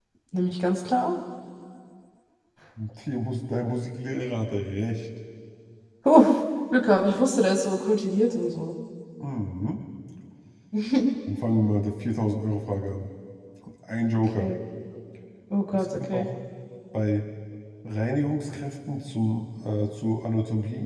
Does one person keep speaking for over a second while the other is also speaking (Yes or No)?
No